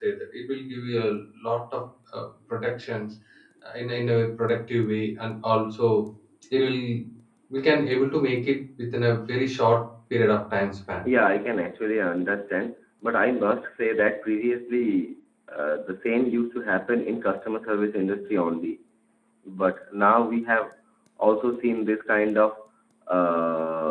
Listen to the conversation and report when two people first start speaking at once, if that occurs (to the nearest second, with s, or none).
none